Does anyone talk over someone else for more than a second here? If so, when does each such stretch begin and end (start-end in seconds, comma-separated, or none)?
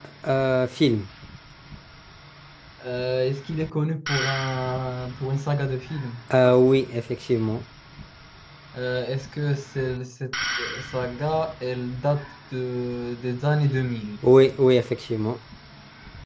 none